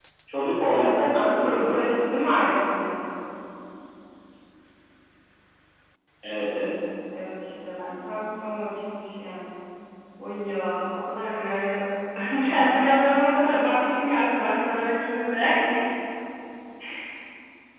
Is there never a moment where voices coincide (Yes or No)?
No